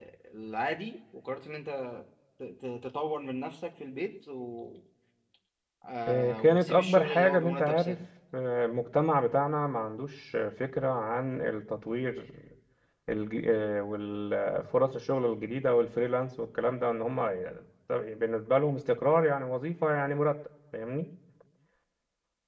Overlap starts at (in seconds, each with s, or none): 6.1 s